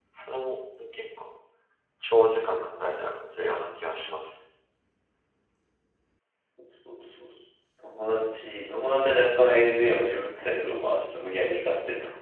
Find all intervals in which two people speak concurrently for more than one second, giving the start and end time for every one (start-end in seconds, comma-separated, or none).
none